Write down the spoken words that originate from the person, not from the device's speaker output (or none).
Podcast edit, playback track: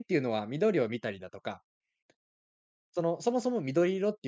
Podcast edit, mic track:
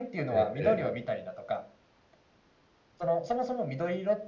ええええ。